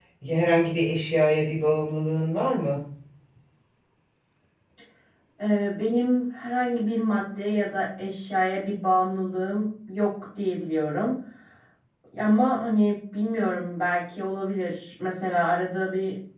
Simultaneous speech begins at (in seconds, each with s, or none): none